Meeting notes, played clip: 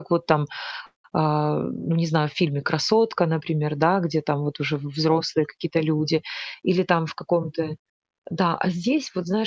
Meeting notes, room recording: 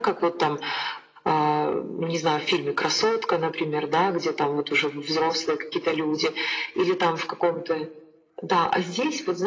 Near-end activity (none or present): none